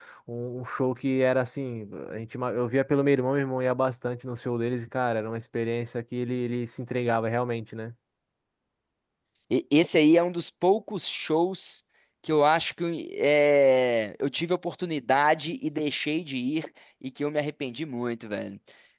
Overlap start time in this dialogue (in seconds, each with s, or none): none